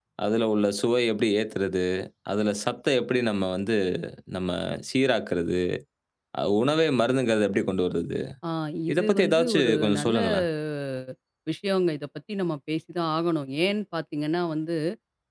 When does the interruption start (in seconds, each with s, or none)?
8.9 s